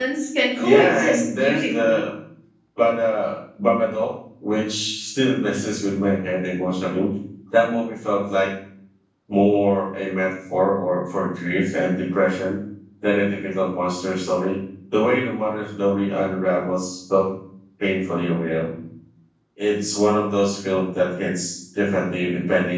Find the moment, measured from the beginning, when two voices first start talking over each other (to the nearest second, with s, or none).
1 s